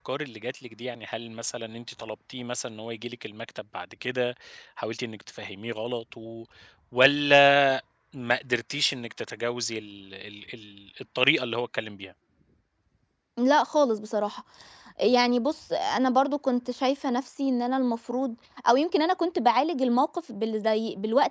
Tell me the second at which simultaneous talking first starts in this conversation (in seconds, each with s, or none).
none